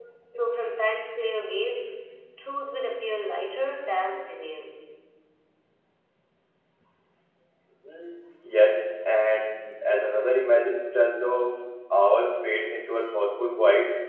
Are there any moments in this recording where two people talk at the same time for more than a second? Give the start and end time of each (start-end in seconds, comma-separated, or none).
none